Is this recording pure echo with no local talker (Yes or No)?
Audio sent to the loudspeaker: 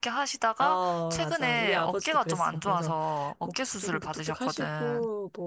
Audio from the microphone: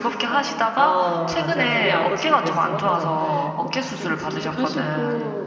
No